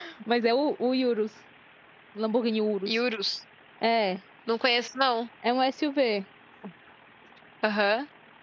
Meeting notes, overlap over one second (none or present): none